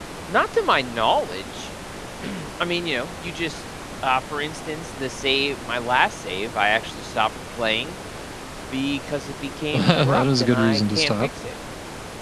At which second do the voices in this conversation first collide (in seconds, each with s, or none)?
9.7 s